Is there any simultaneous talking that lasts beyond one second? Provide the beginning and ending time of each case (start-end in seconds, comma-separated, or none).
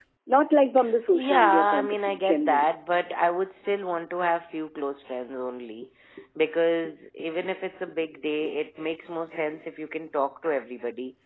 1.1-2.7